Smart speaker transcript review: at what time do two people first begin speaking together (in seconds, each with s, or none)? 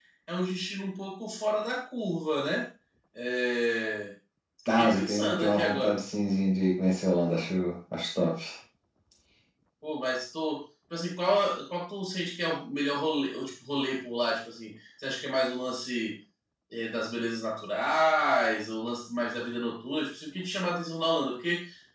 4.8 s